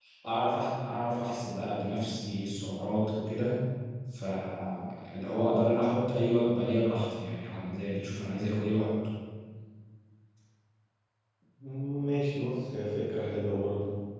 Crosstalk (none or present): none